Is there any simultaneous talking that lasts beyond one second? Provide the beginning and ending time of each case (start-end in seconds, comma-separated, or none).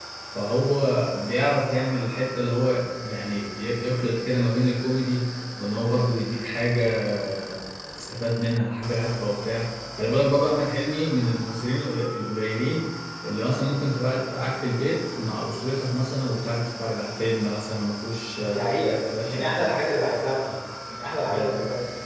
18.4-19.7